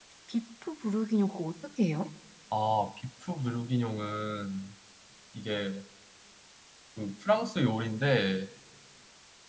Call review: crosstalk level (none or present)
none